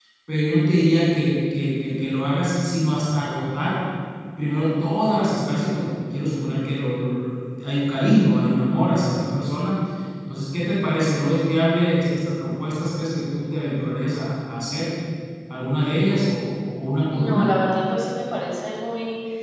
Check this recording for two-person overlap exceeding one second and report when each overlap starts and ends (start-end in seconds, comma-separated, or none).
none